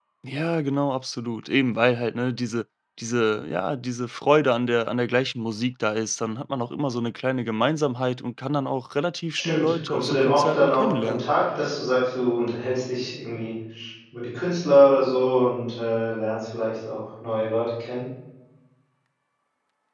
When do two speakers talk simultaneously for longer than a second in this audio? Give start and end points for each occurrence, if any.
9.4-11.2

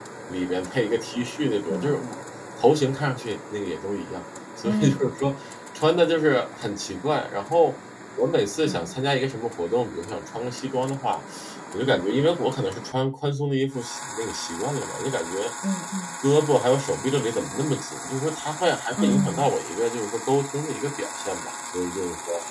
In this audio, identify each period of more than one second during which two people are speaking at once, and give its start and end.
none

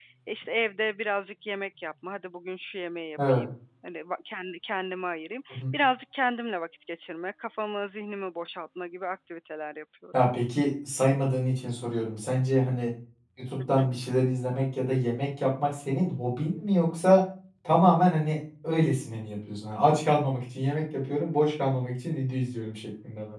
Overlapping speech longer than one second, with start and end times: none

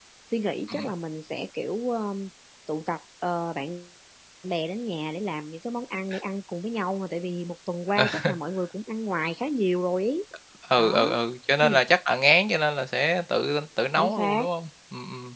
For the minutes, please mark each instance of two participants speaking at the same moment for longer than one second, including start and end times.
none

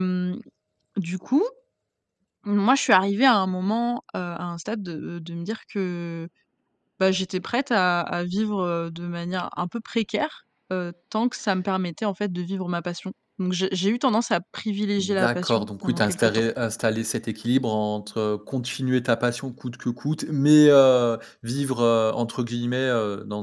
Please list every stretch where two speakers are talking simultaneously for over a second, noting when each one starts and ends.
15.0-16.4

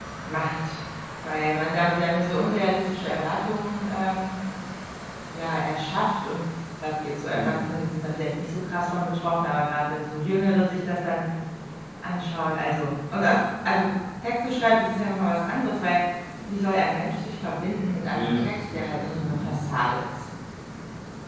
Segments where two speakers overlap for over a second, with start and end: 18.1-19.6

